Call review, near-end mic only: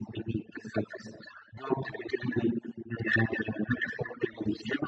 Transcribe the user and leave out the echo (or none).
none